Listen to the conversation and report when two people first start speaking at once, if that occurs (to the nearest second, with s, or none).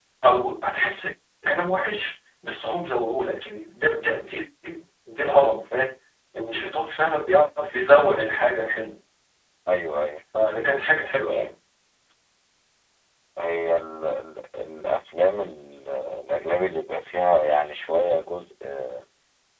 none